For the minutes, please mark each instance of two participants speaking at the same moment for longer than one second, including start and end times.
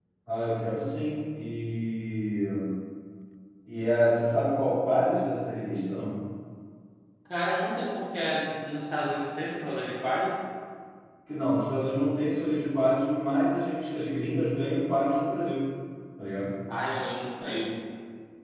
none

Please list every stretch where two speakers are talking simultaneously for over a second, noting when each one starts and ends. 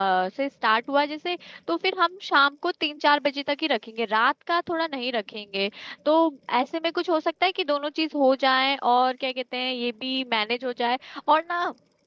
none

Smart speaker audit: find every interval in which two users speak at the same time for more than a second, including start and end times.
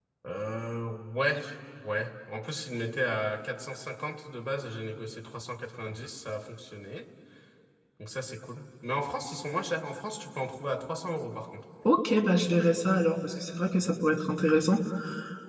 none

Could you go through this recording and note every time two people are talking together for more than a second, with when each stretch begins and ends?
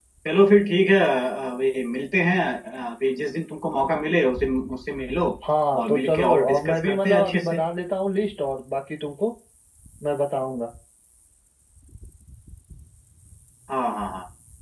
5.7-7.6

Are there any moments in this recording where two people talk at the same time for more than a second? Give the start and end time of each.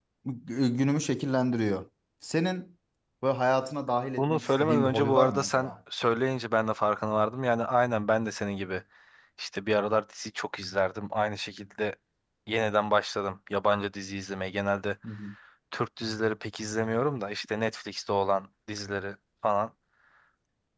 4.2-5.7

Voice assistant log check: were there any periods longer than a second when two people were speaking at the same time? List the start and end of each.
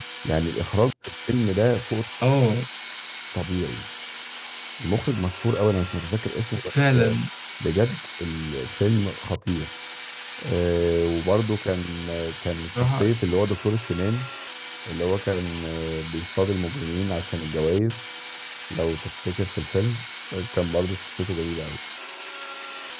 none

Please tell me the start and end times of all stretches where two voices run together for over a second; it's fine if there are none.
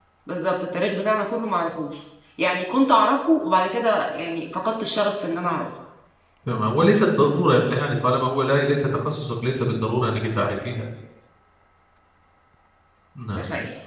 none

